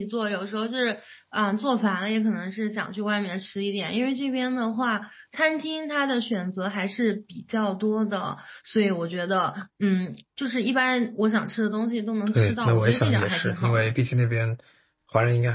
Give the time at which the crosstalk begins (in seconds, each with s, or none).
12.3 s